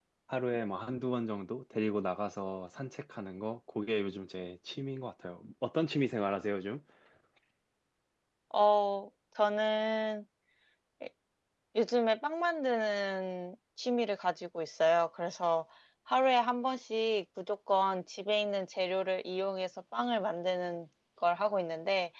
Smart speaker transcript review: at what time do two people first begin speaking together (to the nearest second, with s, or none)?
none